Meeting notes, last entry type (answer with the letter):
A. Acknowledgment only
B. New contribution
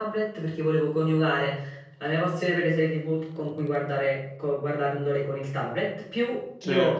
A